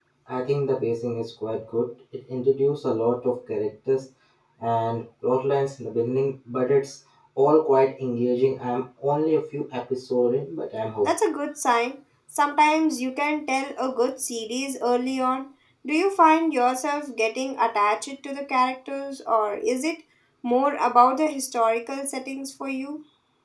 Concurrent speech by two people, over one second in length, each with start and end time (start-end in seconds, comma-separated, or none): none